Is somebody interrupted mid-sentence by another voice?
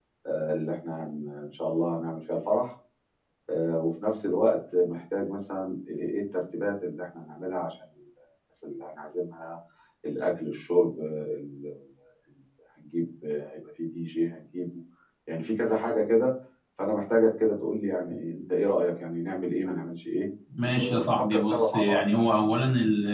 Yes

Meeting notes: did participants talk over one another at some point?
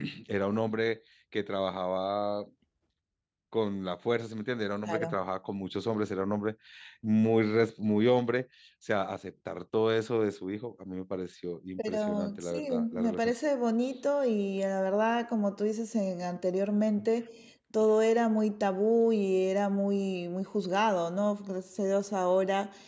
Yes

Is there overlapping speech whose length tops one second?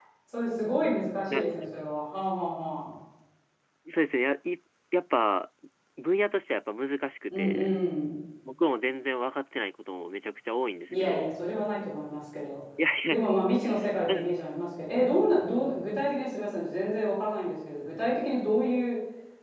No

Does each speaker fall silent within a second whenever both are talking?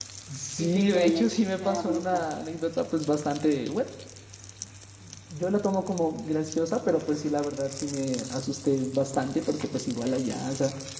No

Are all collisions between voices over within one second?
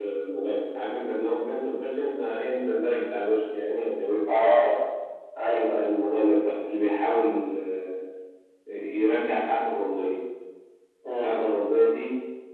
Yes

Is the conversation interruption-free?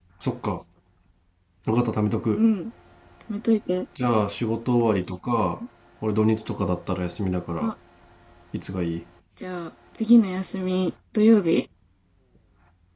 Yes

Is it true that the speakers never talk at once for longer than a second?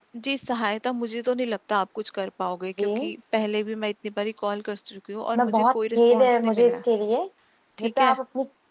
No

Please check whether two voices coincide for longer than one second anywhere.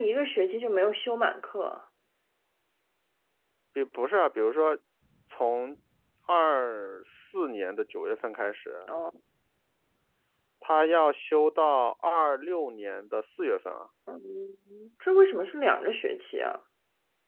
No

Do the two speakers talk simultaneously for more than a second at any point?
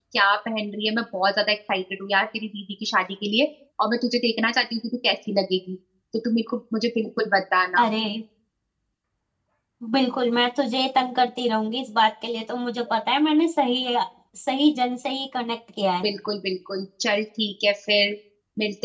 No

